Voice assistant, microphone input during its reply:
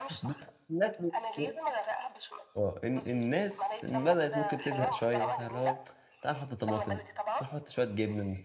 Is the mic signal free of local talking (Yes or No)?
No